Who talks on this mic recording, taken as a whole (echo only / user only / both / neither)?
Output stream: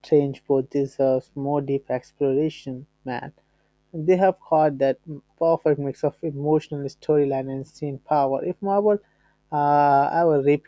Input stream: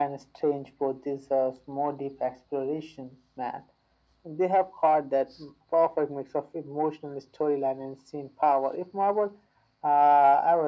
echo only